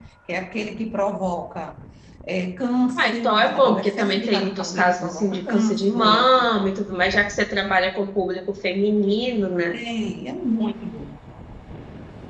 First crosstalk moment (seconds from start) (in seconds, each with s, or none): 2.9 s